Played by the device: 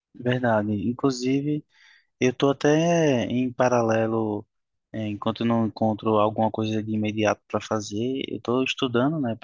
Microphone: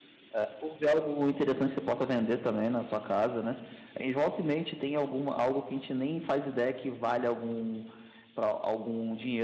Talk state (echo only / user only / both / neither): user only